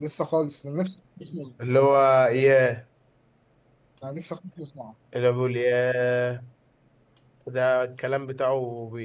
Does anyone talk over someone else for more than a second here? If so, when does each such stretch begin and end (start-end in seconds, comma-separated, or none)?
none